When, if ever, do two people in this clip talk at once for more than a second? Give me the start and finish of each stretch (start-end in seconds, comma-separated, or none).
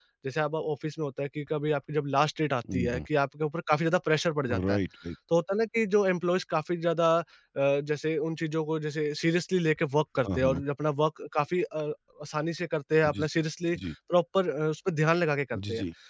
none